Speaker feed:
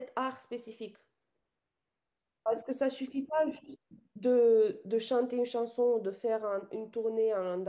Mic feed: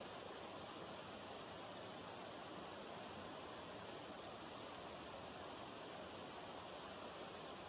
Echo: none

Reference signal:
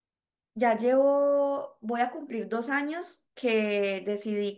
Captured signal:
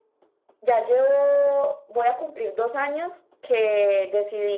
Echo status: present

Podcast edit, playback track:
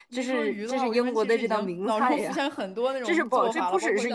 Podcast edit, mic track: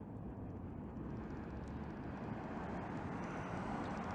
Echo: none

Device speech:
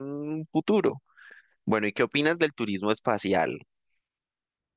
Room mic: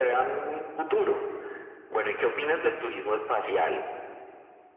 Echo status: present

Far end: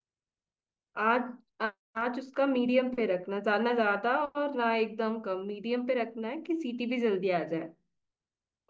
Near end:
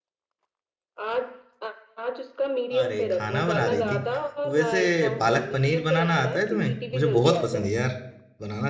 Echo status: present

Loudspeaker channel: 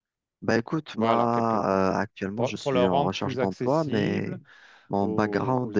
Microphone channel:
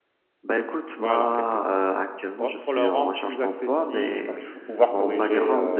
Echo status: present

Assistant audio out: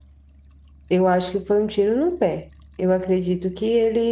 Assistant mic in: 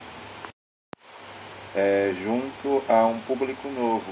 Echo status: none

